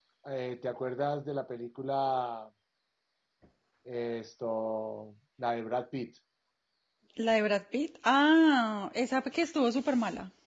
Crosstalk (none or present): none